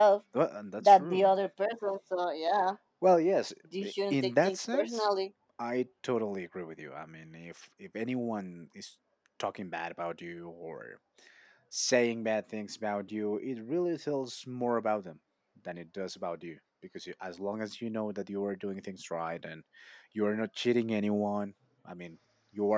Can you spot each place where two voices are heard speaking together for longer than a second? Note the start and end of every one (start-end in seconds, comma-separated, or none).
3.8-5.0